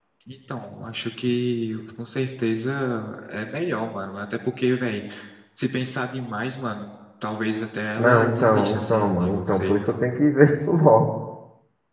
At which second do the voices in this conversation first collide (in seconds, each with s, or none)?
8.0 s